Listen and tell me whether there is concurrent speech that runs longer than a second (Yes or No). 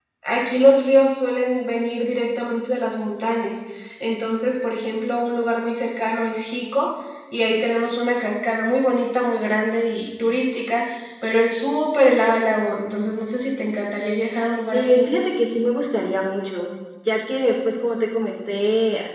No